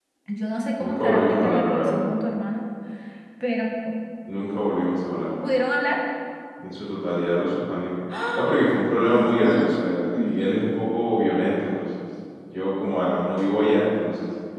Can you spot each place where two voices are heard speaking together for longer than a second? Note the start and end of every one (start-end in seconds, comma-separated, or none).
0.8-2.1, 9.0-10.4